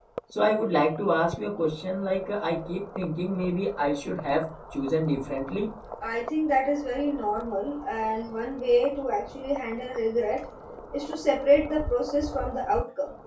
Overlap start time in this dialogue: none

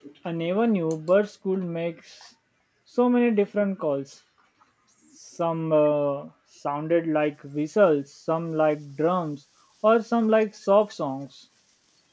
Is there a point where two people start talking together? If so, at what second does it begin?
none

